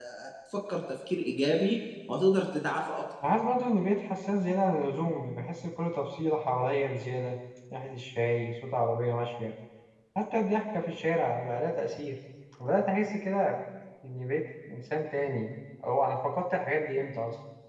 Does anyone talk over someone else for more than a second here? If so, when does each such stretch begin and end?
none

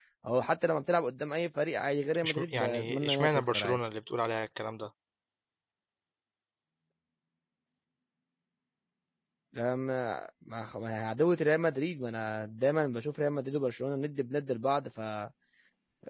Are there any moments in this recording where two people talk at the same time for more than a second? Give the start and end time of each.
2.2-3.8

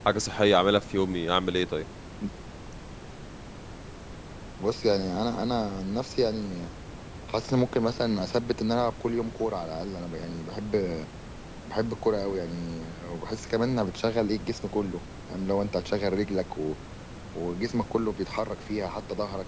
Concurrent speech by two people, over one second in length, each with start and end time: none

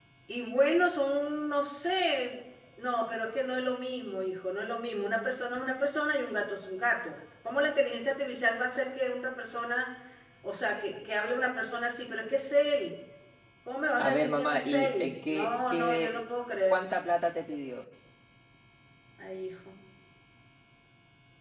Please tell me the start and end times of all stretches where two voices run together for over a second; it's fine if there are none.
14.0-16.2

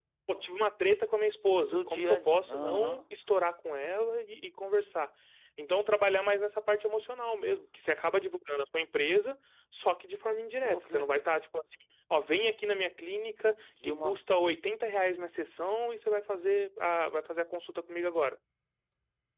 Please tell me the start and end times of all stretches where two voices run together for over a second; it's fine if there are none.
1.6-3.0

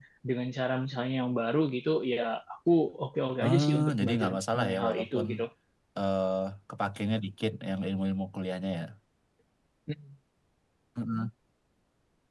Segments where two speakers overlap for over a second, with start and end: 3.4-5.3

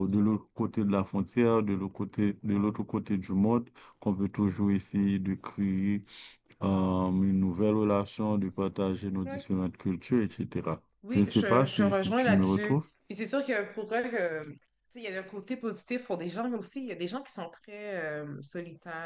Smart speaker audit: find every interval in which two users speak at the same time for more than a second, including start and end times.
11.1-12.8

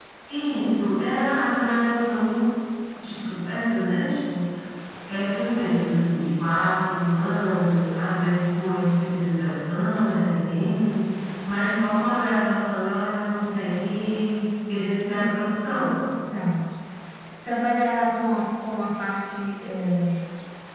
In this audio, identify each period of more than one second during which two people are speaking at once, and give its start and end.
none

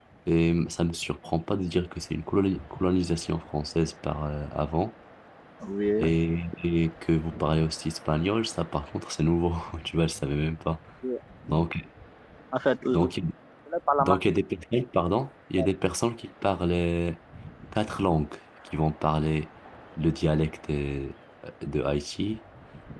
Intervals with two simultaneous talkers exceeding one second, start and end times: none

